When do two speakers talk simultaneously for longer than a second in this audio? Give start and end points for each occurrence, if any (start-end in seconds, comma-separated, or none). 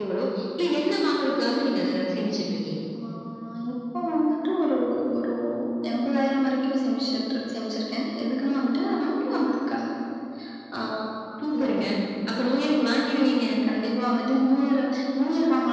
none